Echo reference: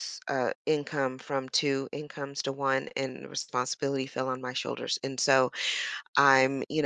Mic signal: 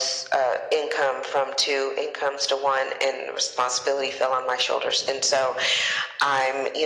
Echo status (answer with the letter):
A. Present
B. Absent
A